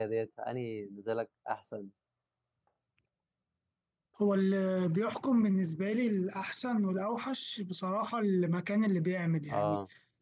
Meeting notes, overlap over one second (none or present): none